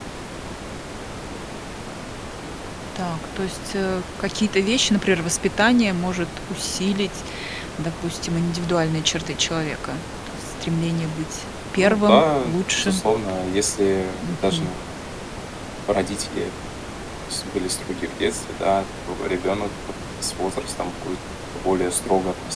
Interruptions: present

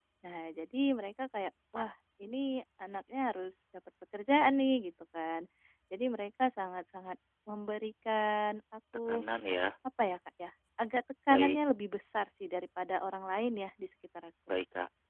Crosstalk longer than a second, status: none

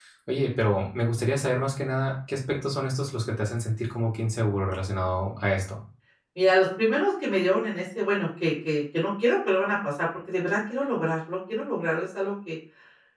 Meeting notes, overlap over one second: none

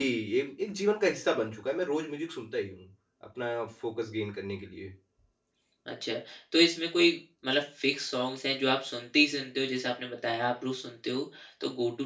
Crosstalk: none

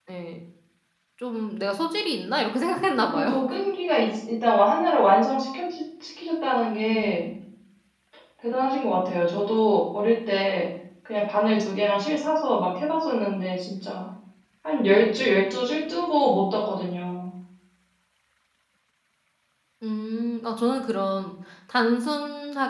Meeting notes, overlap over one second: none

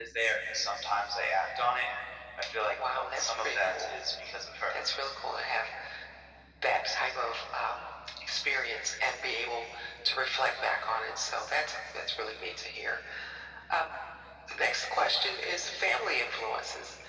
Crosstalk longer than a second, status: present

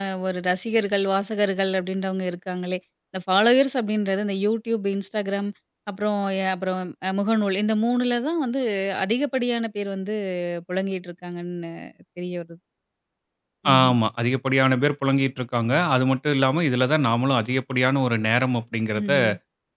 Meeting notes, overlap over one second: none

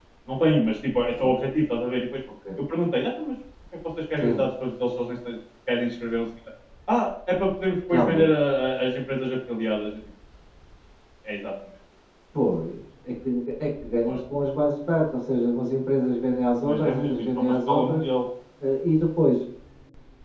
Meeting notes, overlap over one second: present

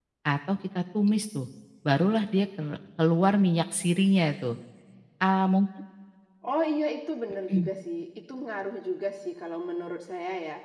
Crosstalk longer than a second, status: none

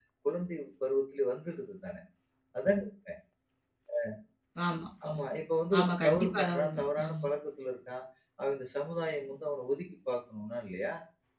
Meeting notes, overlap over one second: present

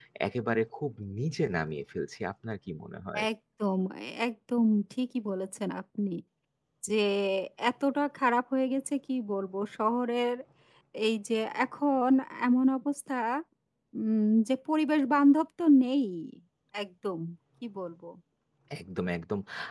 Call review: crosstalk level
none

